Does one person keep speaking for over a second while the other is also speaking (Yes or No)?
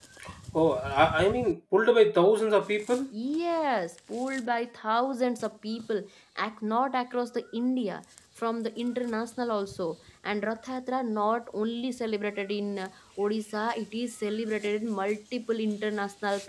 No